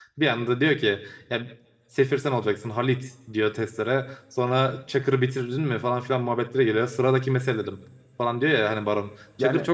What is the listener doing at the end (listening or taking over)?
listening